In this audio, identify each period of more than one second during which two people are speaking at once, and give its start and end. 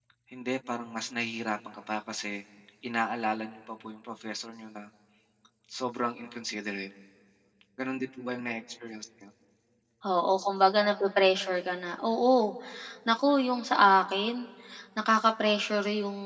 none

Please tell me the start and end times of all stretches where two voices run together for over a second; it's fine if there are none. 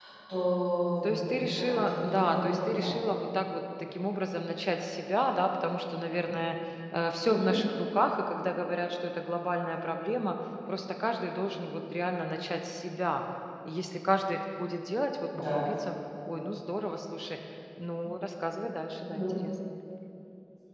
1.0-2.9

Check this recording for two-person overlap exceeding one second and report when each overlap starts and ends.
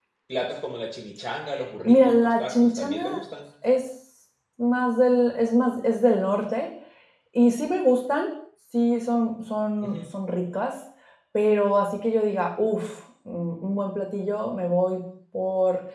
1.9-3.2

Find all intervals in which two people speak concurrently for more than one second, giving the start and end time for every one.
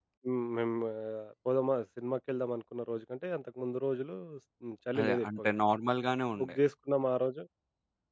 none

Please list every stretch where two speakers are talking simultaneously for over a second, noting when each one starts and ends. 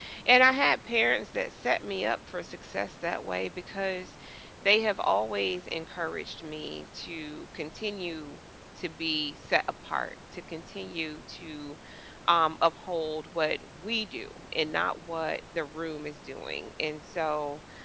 none

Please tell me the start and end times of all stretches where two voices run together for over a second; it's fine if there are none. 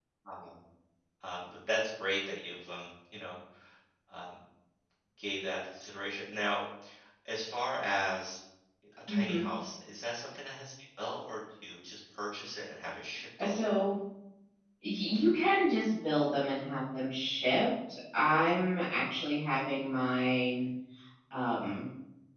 none

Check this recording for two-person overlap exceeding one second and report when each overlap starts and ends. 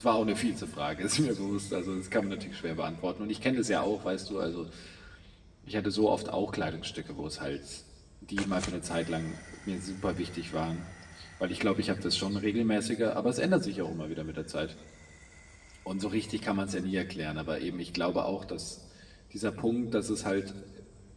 none

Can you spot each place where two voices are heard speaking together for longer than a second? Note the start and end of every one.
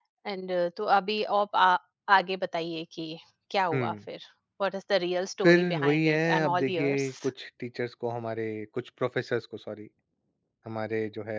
5.4-7.1

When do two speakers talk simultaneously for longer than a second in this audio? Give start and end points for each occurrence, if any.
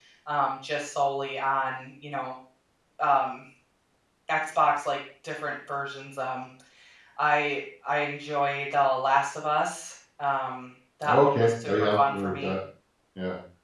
11.1-12.5

